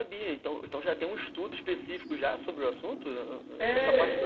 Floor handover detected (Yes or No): Yes